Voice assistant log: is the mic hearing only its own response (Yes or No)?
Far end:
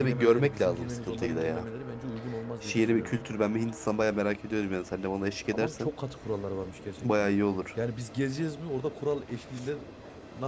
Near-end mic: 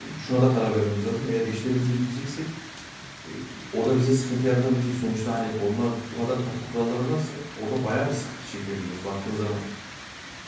No